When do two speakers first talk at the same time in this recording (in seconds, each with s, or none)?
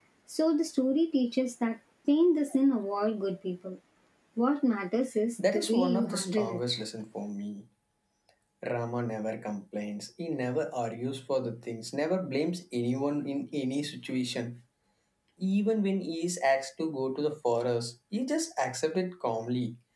5.4 s